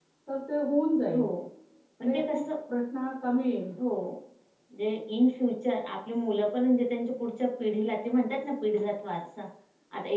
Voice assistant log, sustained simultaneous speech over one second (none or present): none